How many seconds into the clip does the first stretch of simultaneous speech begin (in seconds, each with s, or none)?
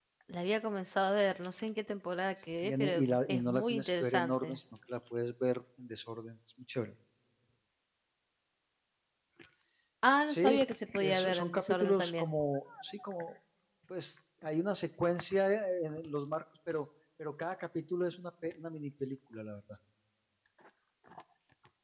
2.6 s